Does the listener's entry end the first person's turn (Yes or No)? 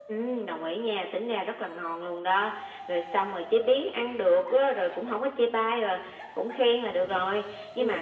No